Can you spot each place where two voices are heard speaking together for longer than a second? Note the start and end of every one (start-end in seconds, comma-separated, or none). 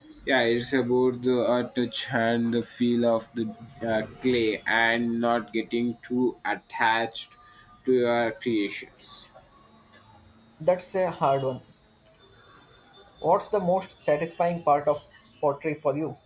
none